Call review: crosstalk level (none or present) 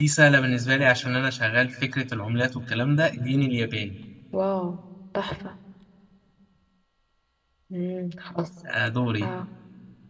none